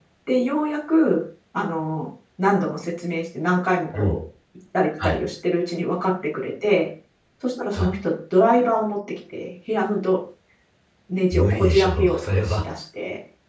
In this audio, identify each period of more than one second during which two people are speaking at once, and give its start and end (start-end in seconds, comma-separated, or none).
11.3-12.6